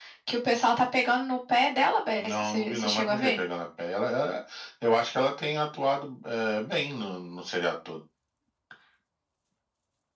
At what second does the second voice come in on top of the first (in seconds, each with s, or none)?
2.2 s